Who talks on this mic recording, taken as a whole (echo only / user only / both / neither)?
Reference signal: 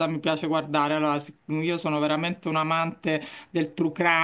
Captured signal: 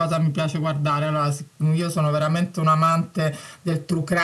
echo only